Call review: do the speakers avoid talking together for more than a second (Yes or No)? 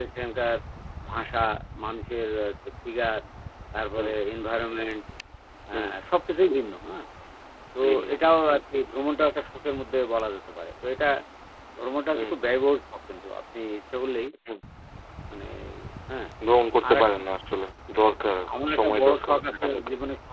No